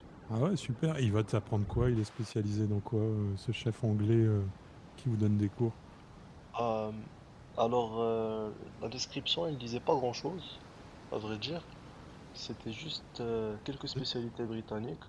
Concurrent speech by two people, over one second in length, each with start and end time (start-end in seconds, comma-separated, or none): none